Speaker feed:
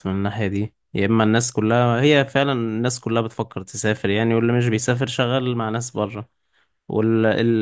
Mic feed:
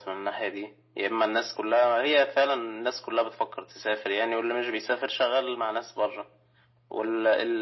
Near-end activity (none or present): none